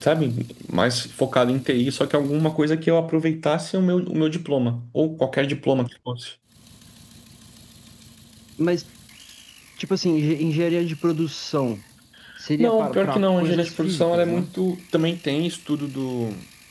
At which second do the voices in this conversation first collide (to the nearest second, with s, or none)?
13 s